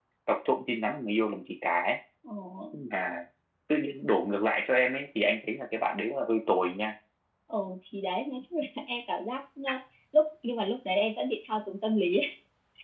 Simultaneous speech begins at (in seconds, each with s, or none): none